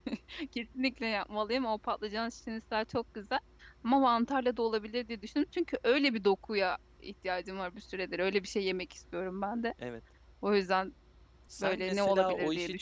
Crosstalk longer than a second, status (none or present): present